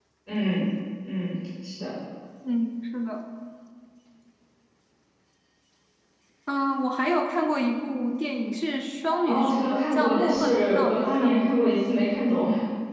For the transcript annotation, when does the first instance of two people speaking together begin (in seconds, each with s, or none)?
9.3 s